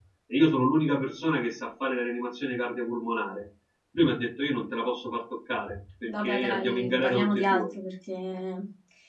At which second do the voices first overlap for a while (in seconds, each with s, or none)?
6.1 s